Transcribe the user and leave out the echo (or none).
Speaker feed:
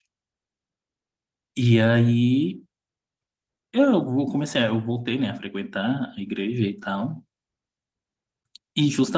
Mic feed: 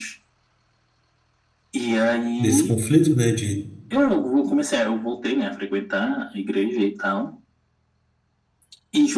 desse conflito, né? De